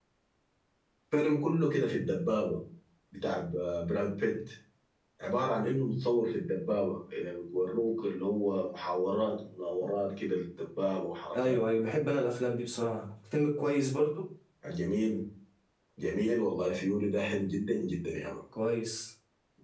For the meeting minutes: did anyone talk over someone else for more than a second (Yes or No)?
No